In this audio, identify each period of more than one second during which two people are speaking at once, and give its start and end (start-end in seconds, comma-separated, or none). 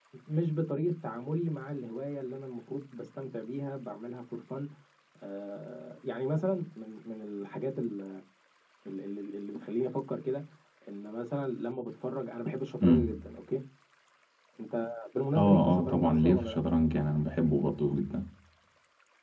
15.4-16.6